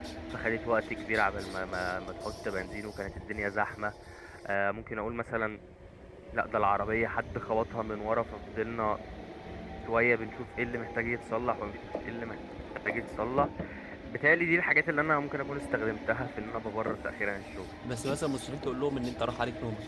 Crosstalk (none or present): none